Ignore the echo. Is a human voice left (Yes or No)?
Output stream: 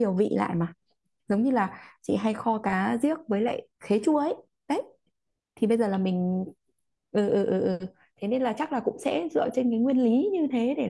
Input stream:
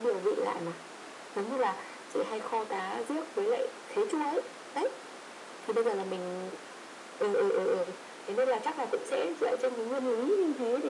No